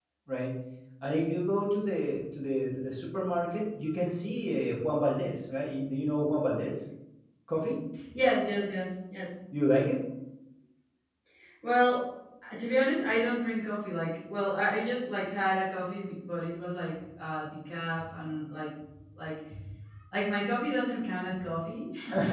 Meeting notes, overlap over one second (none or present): none